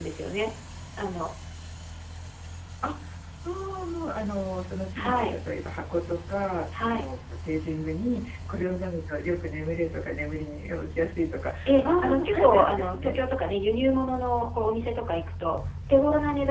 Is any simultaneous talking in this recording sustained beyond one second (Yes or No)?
Yes